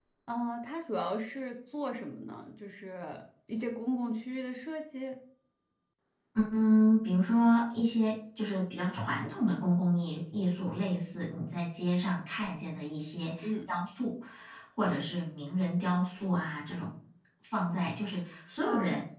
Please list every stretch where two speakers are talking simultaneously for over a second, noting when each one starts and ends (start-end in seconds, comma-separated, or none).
none